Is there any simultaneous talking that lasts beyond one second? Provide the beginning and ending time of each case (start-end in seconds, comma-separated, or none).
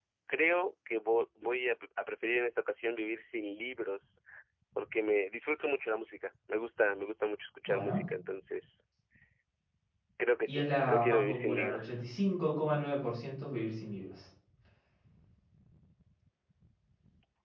10.5-12.0